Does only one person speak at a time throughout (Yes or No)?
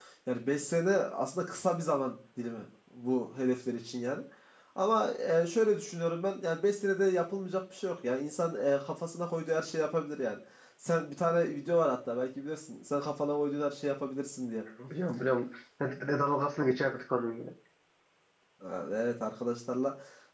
Yes